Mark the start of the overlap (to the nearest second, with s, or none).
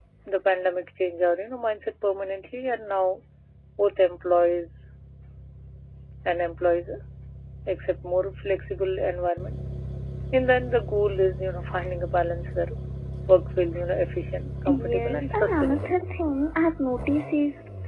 15 s